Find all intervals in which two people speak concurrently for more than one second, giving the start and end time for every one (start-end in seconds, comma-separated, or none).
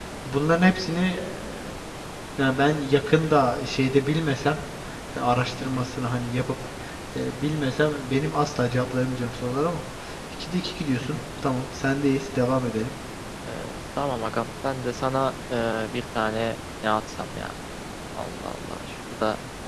none